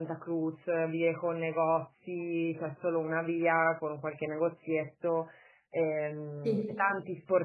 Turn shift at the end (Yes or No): No